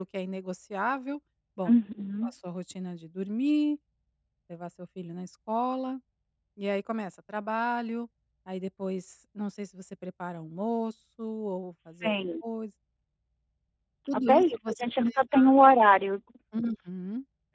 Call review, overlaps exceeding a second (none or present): present